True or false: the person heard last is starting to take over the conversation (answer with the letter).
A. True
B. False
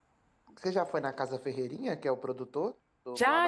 A